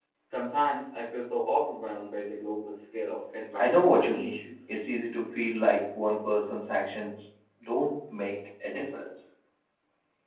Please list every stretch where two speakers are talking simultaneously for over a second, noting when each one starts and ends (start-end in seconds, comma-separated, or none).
3.5-4.8